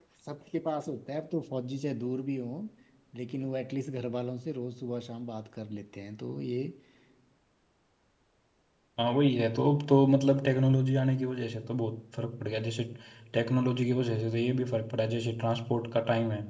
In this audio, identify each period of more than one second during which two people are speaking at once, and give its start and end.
none

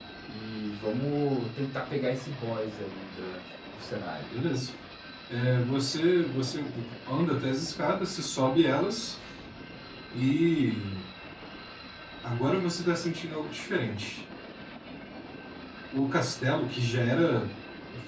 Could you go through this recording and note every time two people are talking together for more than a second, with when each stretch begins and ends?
none

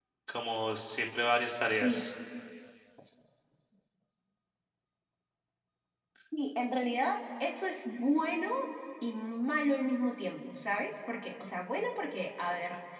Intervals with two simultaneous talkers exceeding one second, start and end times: none

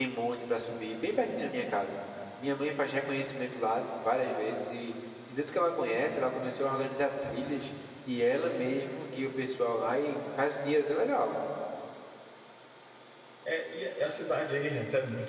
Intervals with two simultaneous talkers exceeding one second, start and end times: none

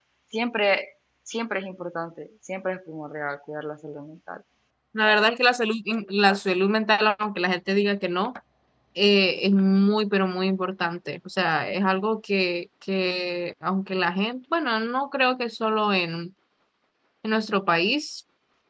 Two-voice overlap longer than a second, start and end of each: none

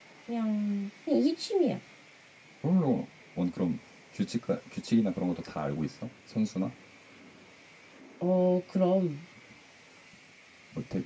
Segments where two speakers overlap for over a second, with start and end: none

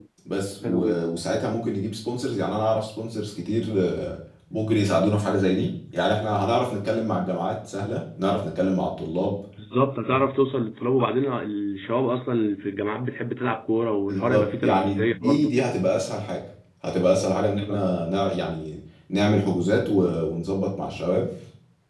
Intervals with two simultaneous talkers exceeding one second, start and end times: 14.1-15.5

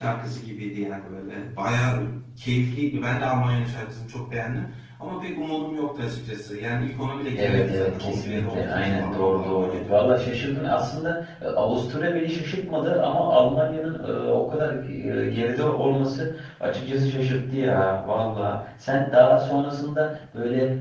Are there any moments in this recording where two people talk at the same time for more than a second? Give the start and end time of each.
7.3-10.0

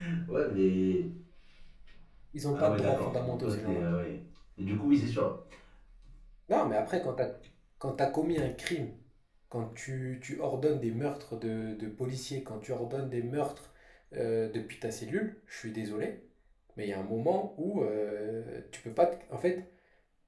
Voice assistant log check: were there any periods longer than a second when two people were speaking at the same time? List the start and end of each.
2.5-3.8

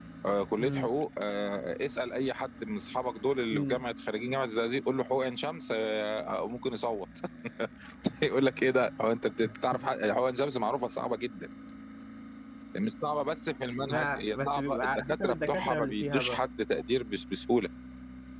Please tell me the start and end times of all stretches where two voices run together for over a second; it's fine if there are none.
13.8-16.4

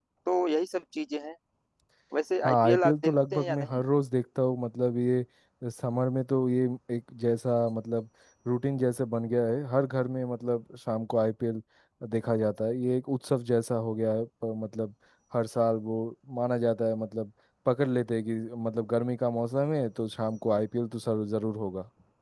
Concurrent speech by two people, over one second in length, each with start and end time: 2.4-3.7

